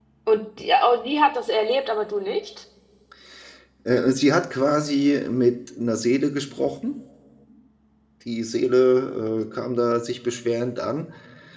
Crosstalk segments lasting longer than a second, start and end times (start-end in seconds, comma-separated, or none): none